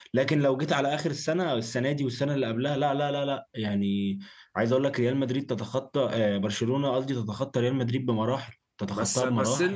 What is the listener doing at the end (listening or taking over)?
taking over